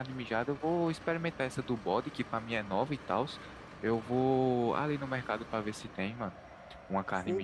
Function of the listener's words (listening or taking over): taking over